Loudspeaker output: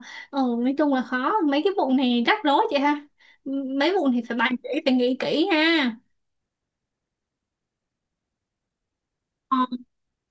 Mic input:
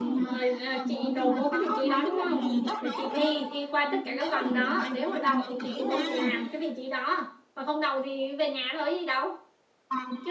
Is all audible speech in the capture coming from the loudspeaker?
No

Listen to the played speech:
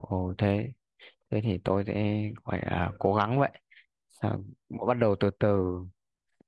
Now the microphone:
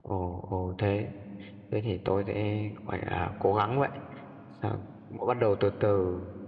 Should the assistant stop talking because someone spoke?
No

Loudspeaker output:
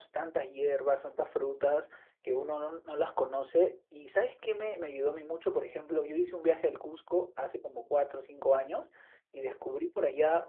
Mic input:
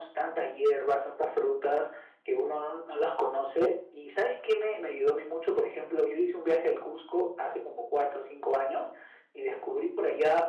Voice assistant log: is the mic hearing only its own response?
Yes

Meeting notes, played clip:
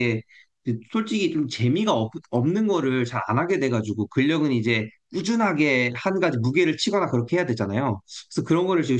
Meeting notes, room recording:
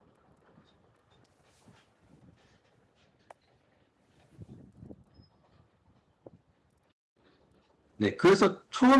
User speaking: Yes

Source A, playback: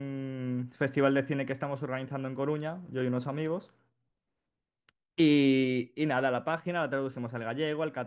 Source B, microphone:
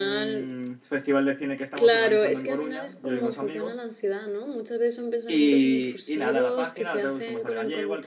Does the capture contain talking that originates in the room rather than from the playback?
Yes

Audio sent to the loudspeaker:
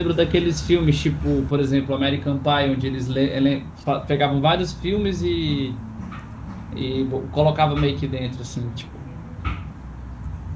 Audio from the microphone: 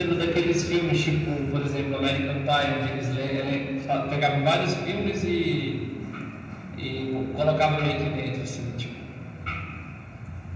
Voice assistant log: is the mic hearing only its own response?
Yes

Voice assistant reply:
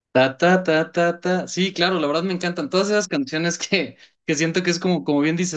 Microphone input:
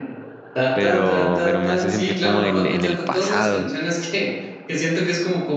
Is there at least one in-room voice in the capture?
Yes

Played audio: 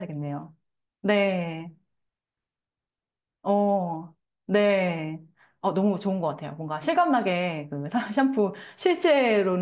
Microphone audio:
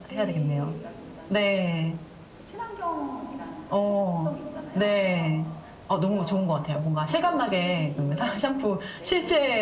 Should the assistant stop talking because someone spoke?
Yes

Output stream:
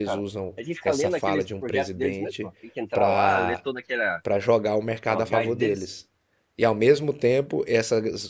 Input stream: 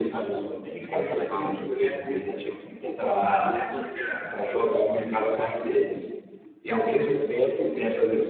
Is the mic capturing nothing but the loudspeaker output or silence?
Yes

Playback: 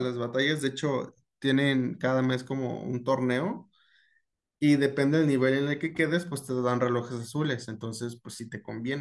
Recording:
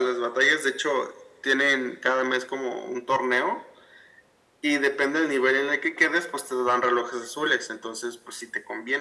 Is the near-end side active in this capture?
No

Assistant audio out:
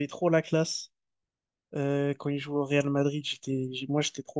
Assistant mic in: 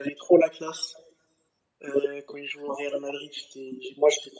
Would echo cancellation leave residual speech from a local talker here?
No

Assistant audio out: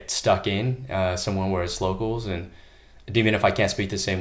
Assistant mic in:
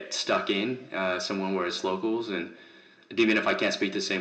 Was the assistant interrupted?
No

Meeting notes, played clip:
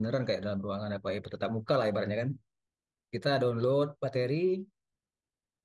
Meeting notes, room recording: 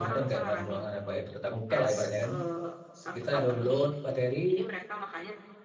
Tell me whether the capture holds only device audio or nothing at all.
No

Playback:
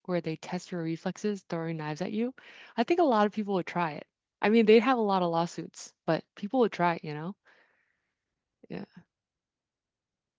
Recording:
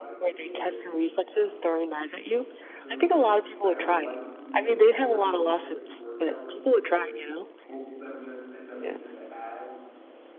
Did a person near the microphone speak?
Yes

